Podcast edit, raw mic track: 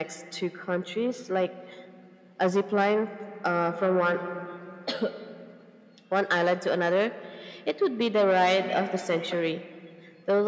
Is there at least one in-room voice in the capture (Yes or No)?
No